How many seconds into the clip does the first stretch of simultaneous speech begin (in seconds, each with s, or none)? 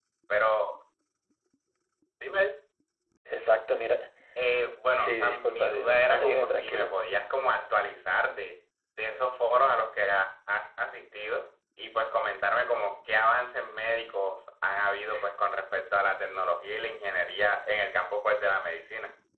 5.0 s